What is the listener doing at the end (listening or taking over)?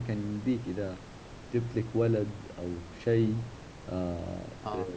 listening